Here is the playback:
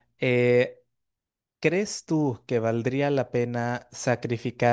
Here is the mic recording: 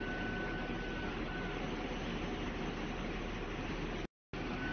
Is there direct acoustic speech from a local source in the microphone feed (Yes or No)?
No